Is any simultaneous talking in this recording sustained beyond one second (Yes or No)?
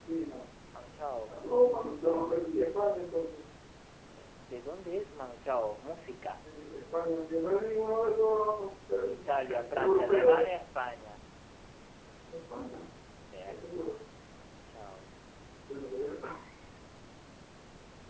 Yes